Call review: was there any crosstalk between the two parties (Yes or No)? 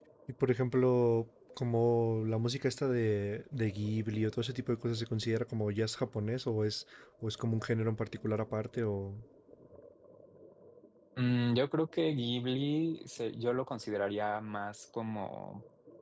No